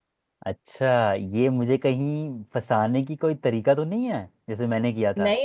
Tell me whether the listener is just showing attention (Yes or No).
No